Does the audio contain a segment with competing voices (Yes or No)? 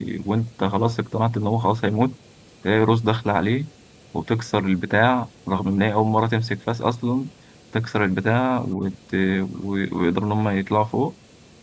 No